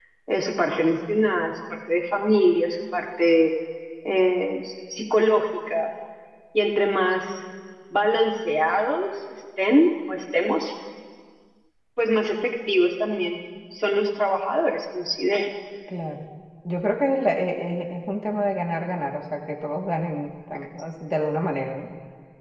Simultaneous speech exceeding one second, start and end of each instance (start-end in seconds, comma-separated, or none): none